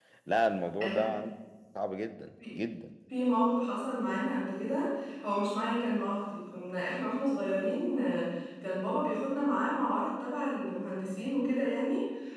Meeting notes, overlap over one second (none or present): none